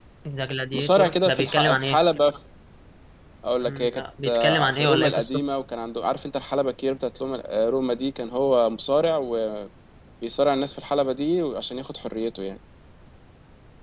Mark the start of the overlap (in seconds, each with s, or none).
0.7 s